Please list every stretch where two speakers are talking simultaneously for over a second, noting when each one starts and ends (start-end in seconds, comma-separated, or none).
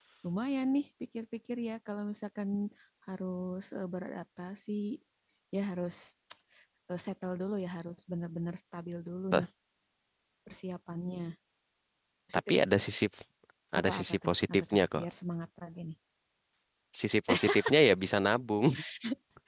13.8-15.1